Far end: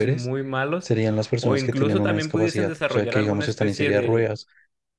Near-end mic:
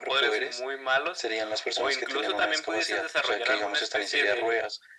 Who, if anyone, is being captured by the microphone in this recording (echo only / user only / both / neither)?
echo only